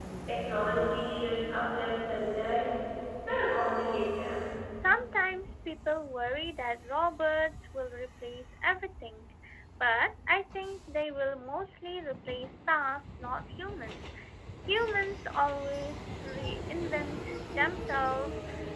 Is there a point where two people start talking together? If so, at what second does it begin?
none

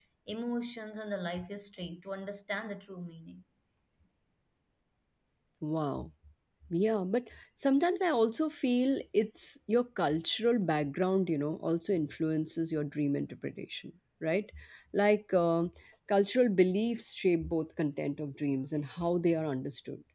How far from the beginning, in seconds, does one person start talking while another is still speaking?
none

